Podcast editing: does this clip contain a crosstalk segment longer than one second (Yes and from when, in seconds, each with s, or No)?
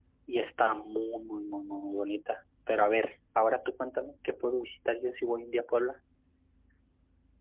No